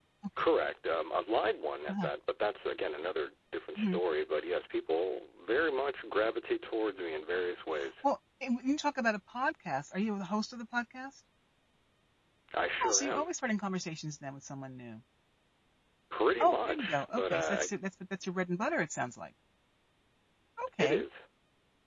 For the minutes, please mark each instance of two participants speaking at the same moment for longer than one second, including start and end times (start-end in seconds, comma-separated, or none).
16.4-17.7